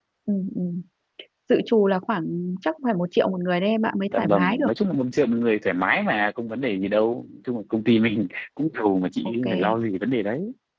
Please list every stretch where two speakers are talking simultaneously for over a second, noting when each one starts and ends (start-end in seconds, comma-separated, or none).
none